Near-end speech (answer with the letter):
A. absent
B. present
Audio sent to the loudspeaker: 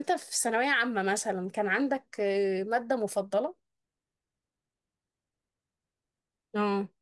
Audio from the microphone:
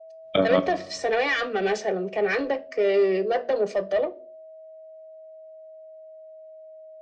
B